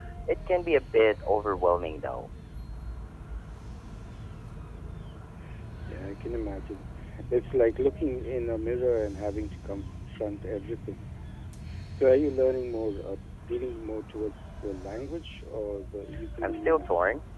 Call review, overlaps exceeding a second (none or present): none